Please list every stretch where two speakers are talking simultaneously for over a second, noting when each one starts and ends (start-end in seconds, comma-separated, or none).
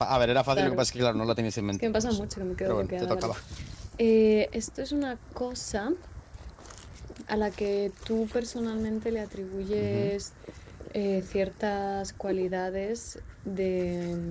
1.7-3.3